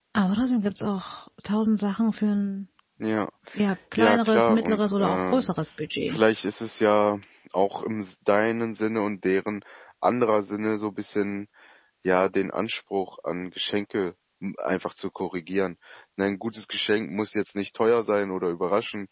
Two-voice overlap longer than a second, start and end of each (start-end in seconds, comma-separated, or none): 4.0-5.5